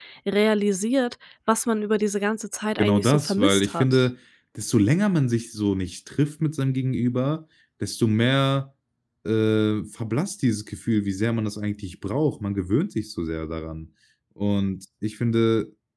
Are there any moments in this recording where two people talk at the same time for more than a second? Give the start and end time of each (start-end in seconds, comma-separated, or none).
2.8-4.0